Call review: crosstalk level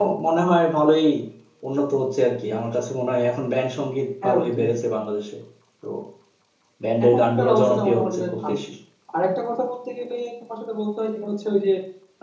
present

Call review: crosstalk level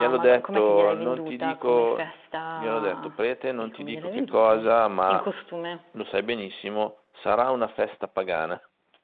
present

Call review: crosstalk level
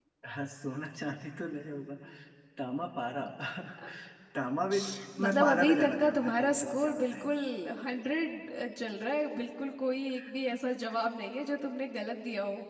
present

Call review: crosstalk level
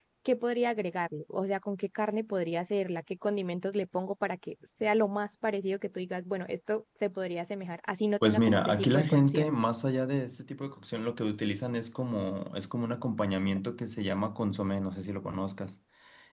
present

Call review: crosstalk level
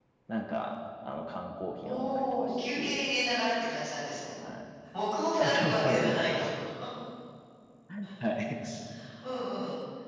present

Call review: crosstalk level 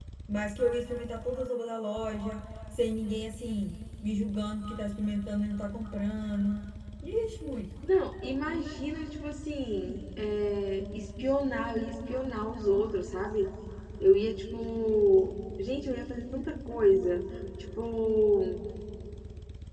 none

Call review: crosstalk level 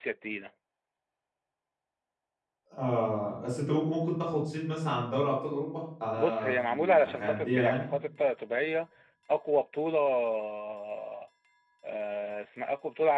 present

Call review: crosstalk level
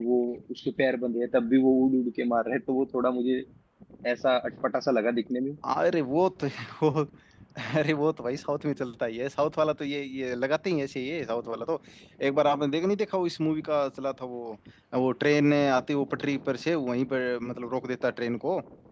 none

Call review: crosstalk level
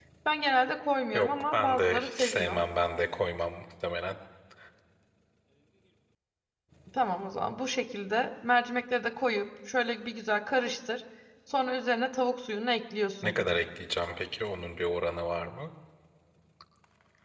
present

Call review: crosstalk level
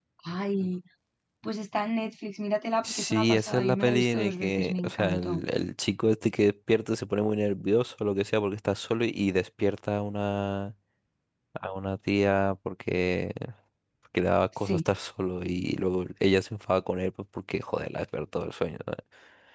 present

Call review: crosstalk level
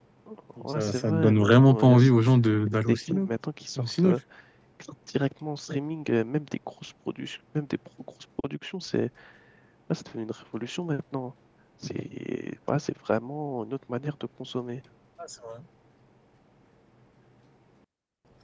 present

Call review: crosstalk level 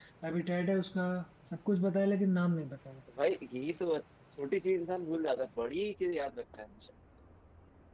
none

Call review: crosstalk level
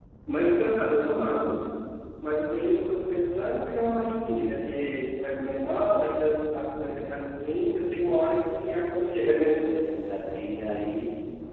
none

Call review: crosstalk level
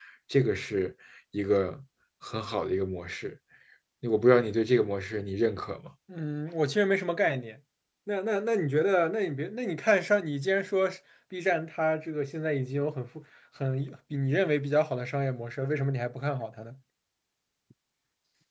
none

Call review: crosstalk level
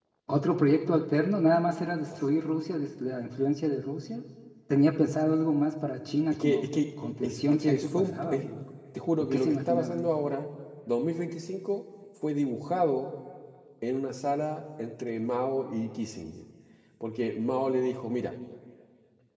present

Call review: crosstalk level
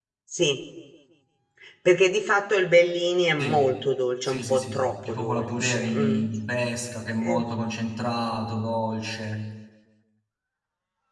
present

